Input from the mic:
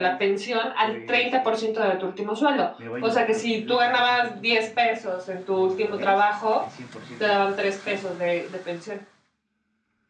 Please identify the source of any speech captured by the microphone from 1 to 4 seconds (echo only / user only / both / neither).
both